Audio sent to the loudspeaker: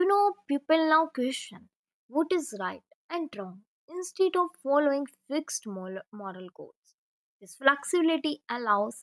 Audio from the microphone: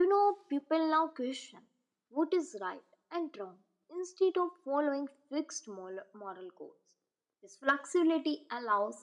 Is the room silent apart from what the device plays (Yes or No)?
Yes